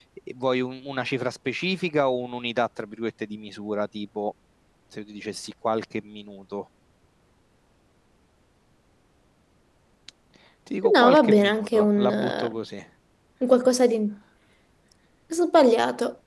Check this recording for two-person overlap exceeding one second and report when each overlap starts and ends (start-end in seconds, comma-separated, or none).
10.9-12.5